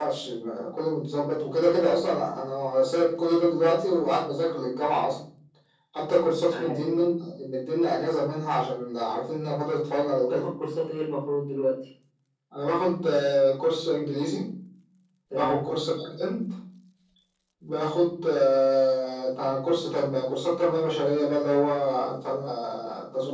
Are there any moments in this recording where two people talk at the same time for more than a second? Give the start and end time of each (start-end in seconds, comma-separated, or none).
none